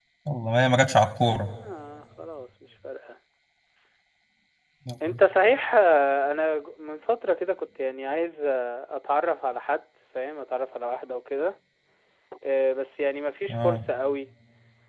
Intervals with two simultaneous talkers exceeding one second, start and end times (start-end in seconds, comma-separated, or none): none